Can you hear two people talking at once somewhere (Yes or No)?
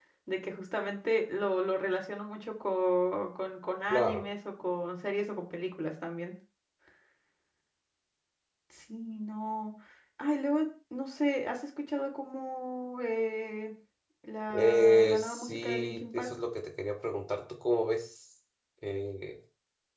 Yes